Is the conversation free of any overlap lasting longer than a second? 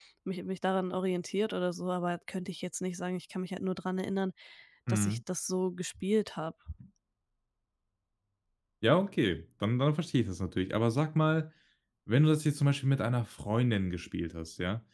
Yes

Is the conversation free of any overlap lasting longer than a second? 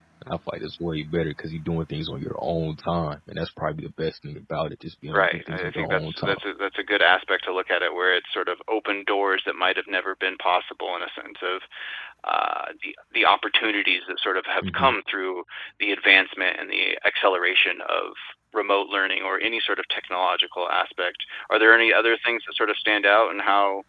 No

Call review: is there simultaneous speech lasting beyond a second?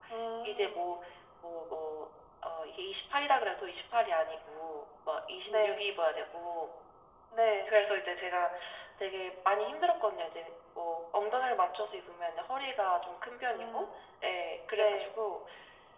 No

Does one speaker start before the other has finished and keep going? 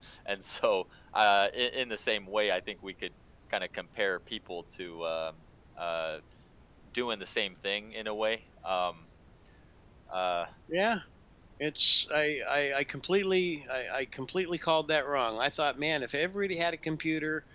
No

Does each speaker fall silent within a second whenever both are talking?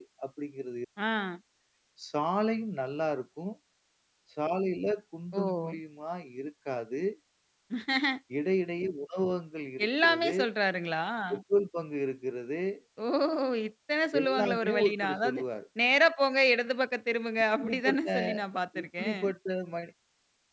No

